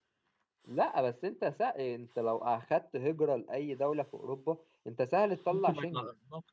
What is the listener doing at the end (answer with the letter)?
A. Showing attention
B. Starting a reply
B